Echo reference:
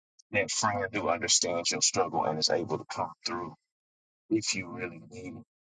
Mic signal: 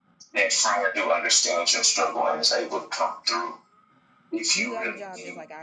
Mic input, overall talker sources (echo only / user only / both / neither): both